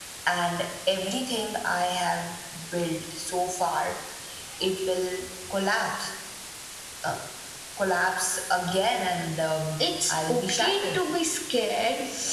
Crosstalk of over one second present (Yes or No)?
Yes